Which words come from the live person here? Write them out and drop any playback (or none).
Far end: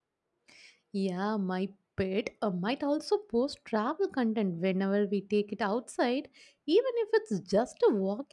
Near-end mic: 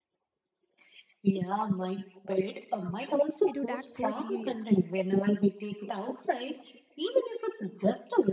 It would act so serious,